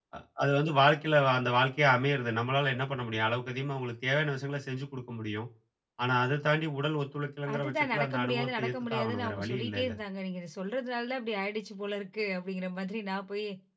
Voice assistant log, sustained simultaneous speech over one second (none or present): present